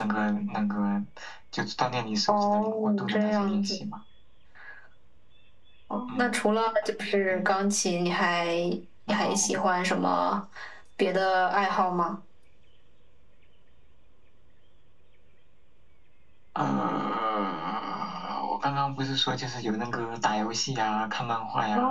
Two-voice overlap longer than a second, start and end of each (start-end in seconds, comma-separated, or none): 2.3-3.6